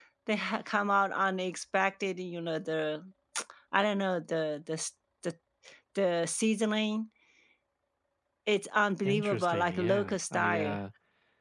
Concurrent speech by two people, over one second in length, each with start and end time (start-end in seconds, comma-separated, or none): 9.0-10.8